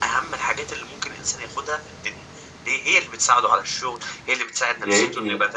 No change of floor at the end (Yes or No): No